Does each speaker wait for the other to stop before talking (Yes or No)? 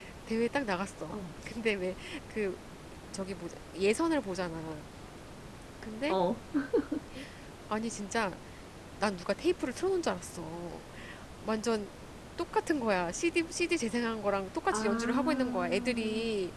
No